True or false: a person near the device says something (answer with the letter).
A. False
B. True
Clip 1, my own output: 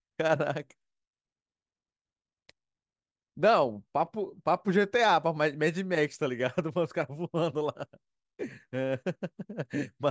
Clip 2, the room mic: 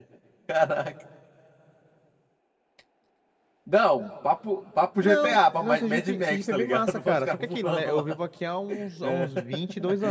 B